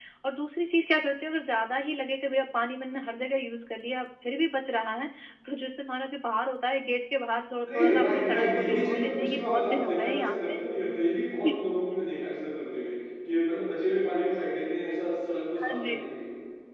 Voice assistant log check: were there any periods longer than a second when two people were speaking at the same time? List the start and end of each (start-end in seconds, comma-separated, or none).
7.7-10.5